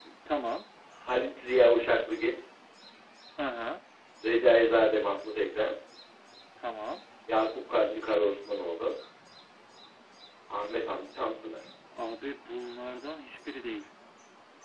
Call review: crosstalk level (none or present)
none